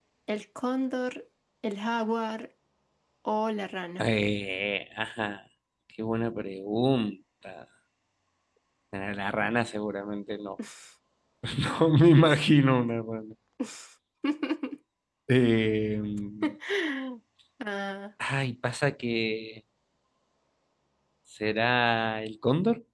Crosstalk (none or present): none